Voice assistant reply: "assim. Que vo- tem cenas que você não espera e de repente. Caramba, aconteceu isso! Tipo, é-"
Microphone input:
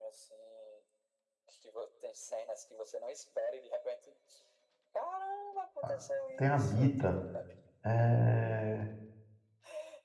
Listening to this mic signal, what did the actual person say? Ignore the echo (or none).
ah, tem Habita, é,